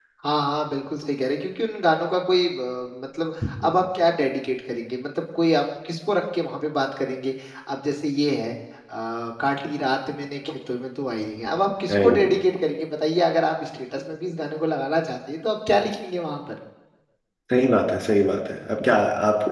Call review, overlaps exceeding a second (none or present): none